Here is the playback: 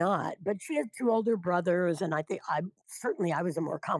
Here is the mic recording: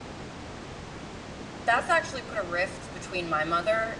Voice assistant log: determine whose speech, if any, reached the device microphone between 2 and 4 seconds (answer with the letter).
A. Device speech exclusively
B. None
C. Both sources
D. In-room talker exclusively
D